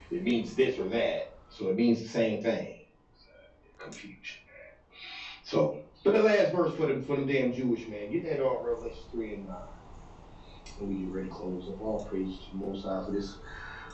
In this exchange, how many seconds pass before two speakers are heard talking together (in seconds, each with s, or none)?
none